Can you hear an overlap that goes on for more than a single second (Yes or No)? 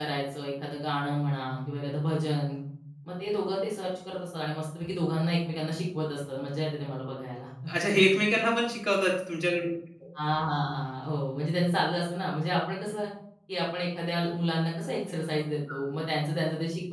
No